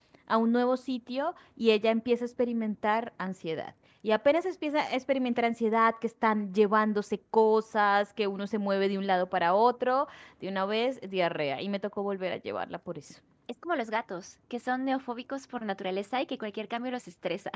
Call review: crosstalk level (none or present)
none